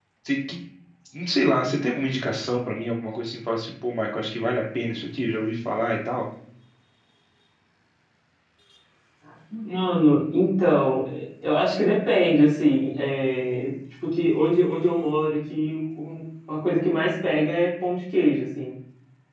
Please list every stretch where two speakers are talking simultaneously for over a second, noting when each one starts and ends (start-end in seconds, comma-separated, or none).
none